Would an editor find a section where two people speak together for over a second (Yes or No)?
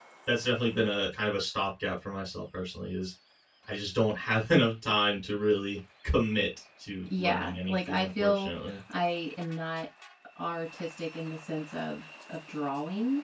Yes